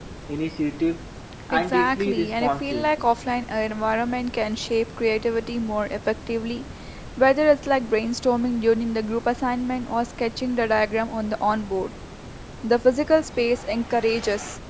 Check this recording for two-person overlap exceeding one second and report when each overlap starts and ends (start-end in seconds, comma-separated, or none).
1.5-2.9